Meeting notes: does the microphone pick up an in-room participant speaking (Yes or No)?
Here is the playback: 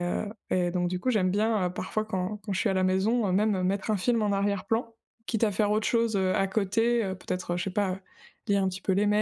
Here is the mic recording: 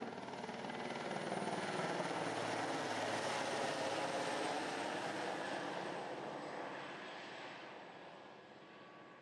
No